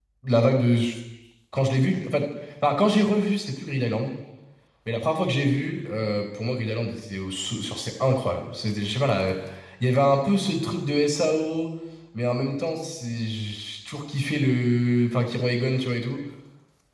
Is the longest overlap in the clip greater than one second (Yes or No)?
No